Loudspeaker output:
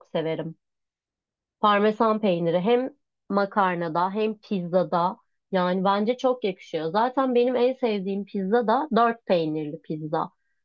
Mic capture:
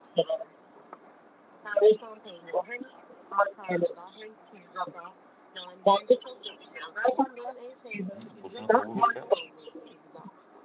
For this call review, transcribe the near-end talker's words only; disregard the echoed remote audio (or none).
hı, sosunu kavururken